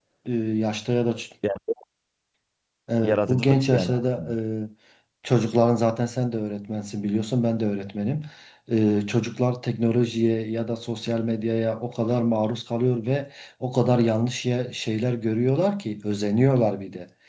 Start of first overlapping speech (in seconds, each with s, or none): 3.0 s